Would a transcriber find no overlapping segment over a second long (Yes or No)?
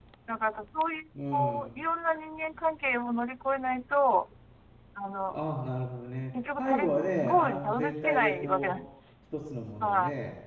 No